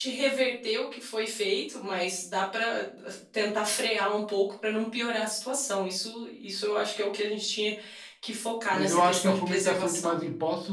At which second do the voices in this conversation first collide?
9 s

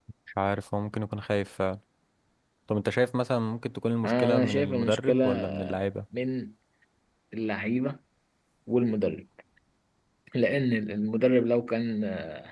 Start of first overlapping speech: 4 s

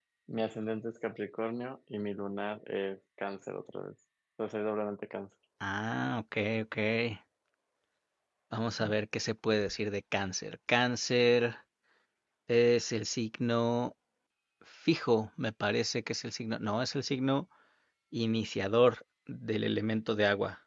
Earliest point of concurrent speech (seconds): none

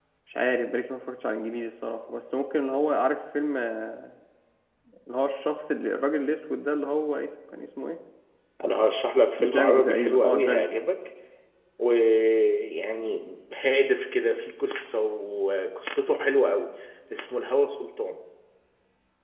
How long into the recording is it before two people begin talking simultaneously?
9 s

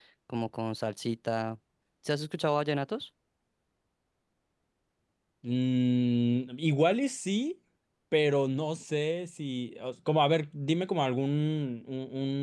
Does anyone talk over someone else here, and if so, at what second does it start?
none

